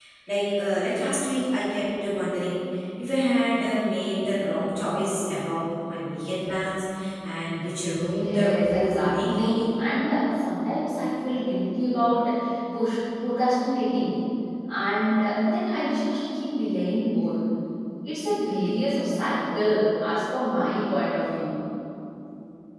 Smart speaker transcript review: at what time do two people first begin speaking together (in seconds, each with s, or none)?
7.9 s